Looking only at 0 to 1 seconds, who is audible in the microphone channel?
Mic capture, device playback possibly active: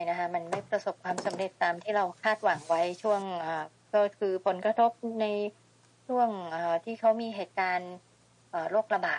echo only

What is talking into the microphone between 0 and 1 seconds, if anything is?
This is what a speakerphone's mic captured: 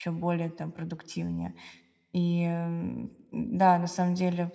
user only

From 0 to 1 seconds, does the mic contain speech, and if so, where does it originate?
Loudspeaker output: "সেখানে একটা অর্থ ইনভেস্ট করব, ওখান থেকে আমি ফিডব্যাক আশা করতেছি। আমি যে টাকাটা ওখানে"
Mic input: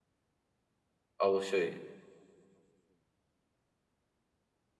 neither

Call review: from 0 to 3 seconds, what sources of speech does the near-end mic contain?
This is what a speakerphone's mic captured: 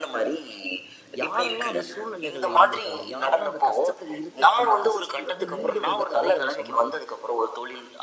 both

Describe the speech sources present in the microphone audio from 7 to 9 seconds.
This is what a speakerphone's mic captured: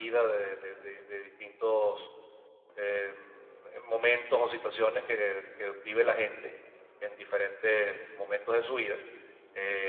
echo only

